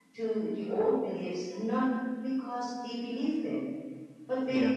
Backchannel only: Yes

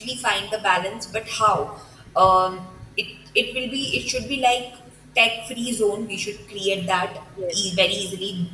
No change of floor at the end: Yes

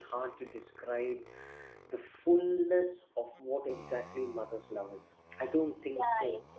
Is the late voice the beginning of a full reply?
Yes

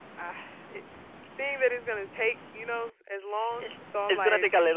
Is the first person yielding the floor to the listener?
Yes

